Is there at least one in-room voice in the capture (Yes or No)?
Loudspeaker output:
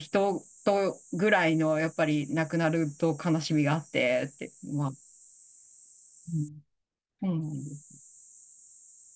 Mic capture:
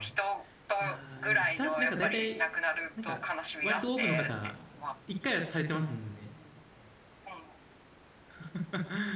Yes